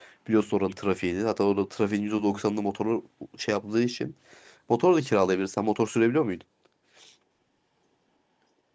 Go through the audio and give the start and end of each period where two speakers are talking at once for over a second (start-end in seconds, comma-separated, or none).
none